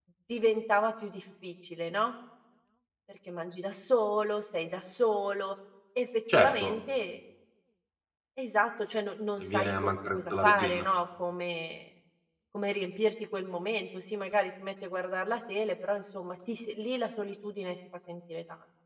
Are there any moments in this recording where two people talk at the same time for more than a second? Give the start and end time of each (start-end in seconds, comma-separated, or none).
9.4-10.8